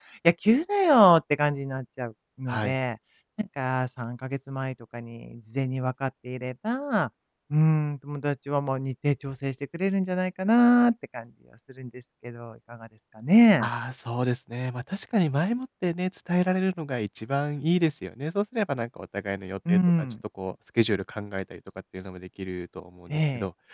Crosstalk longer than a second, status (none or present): none